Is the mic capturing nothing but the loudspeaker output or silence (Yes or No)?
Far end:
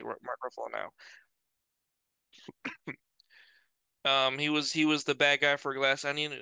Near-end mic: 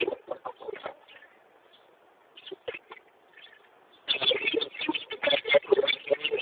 Yes